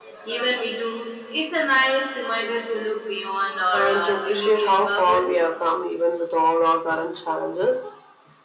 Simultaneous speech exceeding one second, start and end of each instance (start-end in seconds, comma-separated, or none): 3.7-5.4